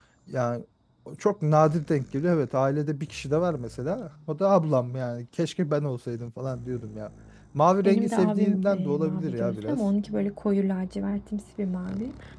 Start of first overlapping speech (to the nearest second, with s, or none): 8 s